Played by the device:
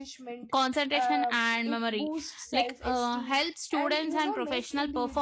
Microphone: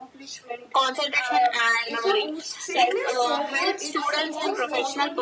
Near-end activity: present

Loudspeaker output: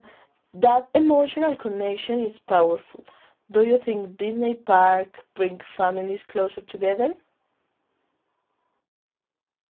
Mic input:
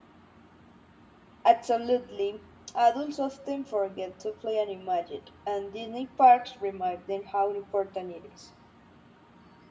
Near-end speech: present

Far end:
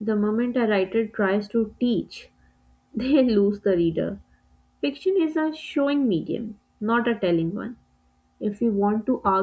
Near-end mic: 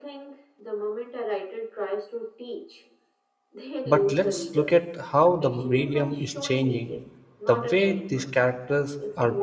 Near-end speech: present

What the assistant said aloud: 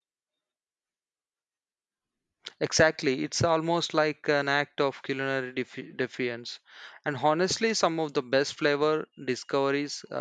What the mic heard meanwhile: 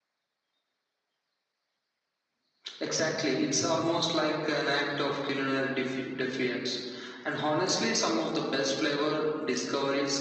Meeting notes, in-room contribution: none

